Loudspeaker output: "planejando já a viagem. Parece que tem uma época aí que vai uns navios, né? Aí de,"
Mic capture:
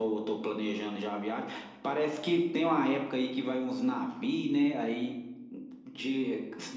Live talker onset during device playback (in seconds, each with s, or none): none